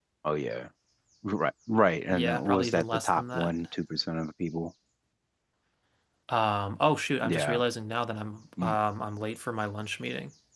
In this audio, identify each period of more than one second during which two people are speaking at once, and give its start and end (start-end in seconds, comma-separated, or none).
2.1-3.5